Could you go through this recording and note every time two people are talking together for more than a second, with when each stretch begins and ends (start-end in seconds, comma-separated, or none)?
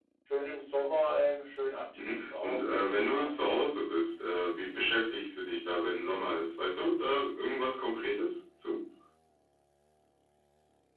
2.0-3.3